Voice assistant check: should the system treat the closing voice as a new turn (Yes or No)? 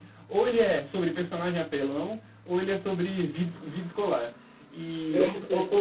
No